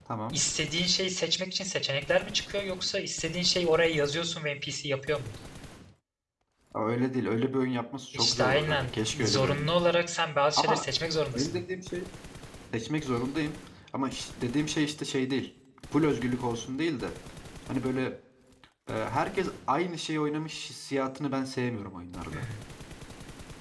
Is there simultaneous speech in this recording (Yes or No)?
Yes